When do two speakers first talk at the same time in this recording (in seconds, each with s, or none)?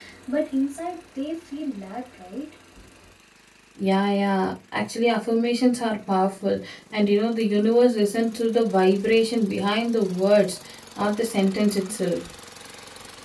none